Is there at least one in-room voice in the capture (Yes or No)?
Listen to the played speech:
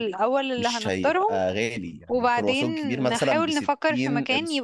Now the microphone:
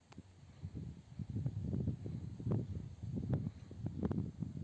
No